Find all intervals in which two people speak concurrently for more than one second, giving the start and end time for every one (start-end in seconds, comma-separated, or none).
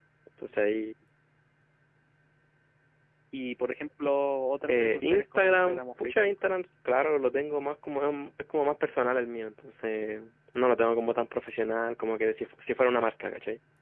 4.7-6.1